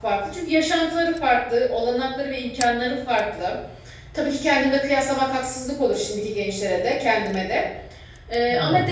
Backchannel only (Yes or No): Yes